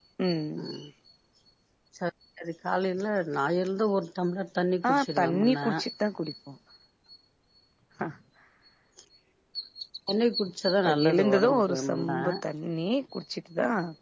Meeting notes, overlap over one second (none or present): present